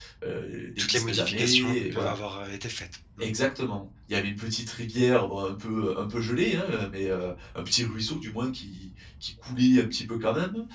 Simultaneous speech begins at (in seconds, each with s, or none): 0.8 s